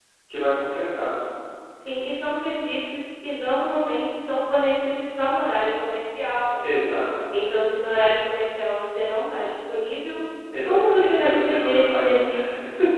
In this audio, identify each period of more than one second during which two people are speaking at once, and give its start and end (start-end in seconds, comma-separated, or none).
10.7-12.1